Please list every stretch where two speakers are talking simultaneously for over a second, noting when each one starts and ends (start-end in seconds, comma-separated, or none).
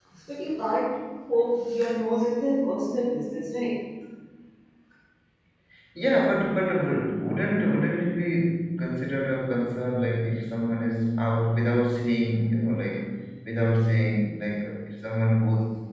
none